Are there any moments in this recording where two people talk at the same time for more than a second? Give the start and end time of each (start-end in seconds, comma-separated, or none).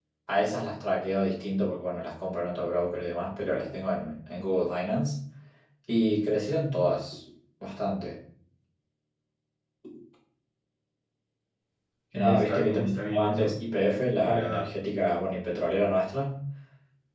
12.1-13.5